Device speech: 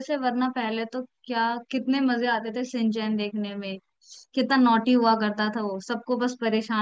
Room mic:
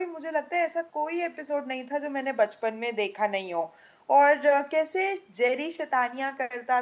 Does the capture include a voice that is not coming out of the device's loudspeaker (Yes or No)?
Yes